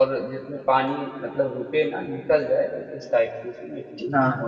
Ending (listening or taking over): taking over